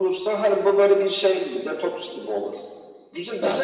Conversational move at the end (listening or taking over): listening